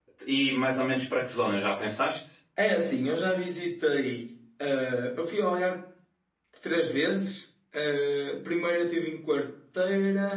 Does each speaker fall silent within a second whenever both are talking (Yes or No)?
Yes